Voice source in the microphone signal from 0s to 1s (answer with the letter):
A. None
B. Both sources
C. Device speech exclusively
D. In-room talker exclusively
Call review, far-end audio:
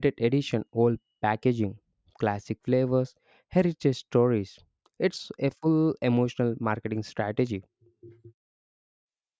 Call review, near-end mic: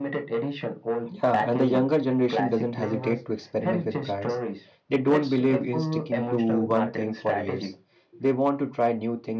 C